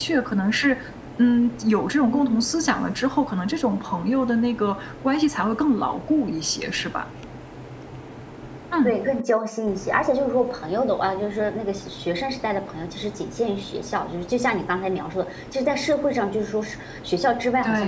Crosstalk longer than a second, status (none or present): none